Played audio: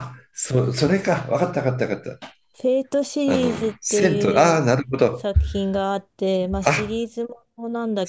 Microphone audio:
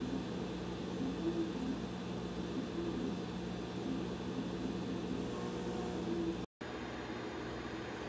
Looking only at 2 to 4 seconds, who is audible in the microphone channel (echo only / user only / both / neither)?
neither